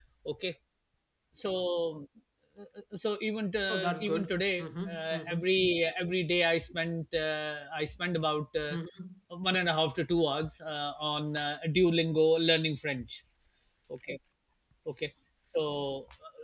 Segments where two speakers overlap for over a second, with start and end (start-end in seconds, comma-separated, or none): 3.7-5.4